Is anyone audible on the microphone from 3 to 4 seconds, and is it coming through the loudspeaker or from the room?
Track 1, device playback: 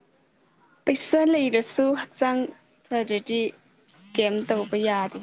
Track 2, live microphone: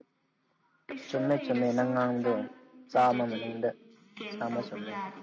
both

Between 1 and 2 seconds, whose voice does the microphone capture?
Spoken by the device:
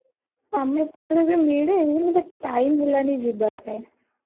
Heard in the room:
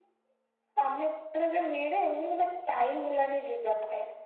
echo only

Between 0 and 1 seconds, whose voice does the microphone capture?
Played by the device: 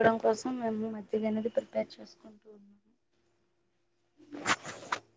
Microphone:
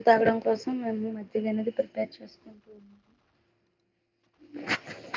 echo only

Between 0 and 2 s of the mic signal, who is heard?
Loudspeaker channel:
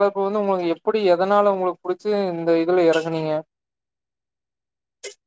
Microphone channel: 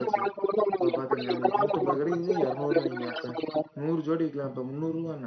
both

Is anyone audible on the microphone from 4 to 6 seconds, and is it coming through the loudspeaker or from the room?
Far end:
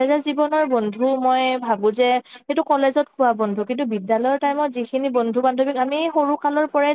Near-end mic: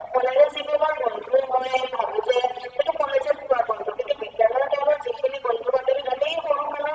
echo only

